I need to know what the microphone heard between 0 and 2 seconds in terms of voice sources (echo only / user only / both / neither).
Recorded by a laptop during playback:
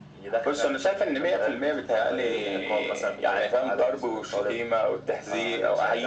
echo only